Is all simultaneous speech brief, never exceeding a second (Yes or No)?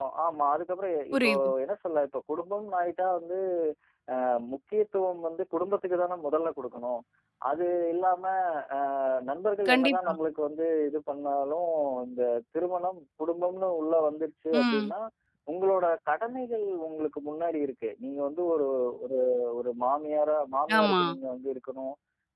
Yes